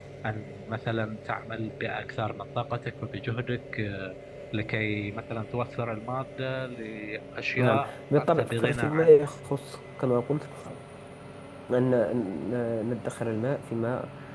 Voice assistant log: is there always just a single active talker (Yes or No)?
No